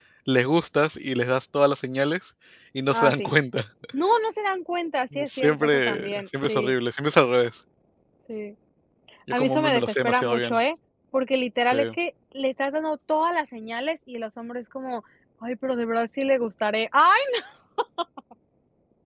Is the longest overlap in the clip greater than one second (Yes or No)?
Yes